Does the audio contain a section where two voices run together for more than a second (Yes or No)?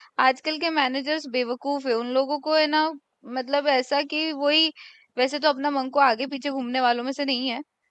No